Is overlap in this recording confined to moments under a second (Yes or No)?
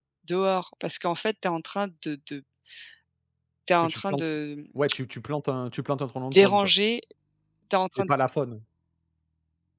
Yes